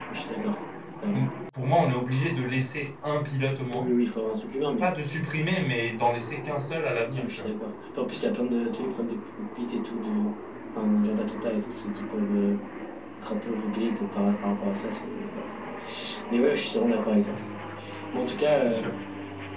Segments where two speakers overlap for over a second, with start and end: none

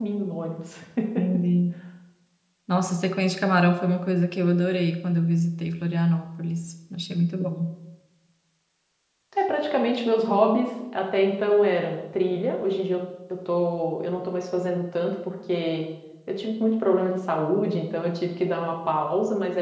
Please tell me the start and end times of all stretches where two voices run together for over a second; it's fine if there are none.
none

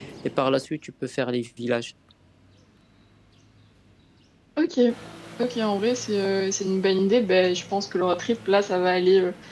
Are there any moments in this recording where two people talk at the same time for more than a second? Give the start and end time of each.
none

